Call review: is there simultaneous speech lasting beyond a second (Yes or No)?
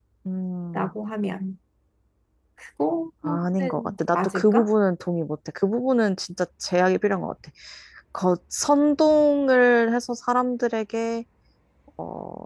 Yes